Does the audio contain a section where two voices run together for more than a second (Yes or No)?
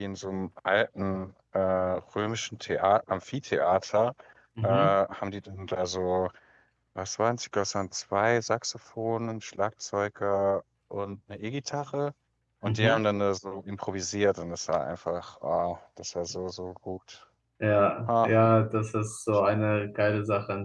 No